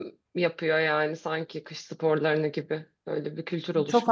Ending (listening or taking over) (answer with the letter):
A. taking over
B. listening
A